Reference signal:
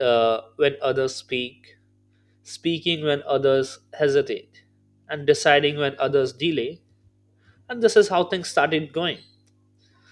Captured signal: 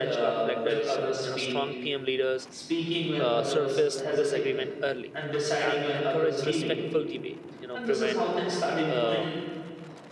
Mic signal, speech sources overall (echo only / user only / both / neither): both